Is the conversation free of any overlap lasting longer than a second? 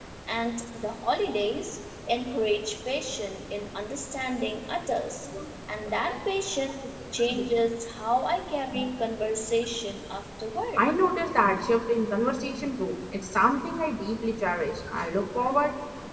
Yes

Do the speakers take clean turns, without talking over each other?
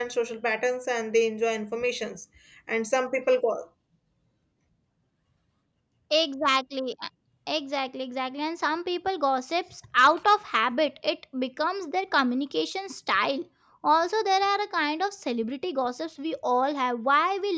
Yes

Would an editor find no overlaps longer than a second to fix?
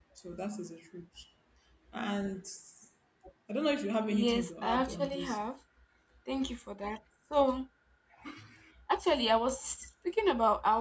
No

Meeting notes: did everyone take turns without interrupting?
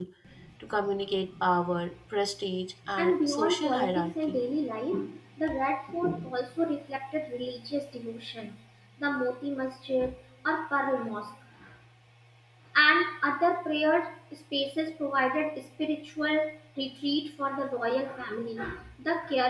No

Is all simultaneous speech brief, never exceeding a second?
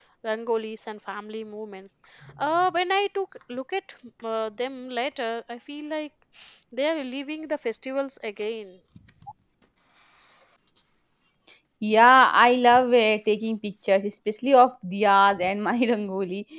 Yes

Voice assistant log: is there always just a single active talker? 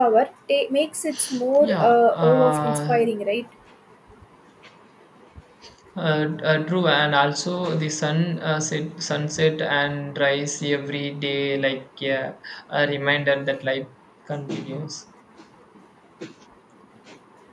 No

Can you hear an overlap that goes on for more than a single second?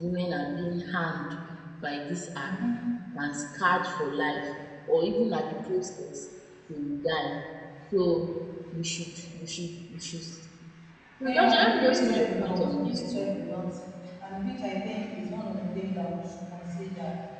Yes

